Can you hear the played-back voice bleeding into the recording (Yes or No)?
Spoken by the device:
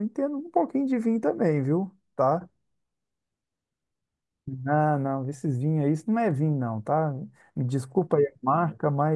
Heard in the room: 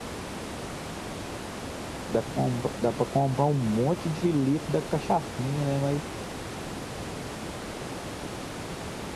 No